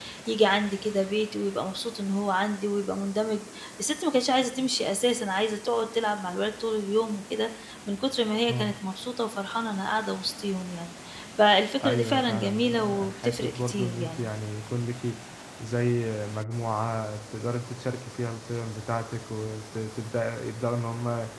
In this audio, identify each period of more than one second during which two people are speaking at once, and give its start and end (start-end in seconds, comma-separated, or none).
11.8-14.3